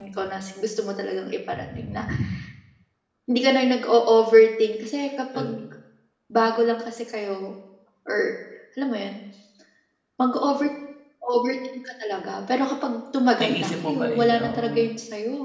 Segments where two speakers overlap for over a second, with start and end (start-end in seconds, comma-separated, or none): 13.4-14.9